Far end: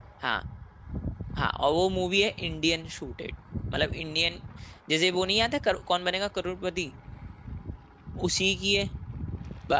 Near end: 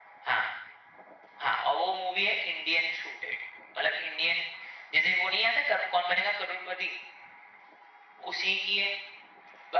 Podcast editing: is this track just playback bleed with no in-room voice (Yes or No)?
Yes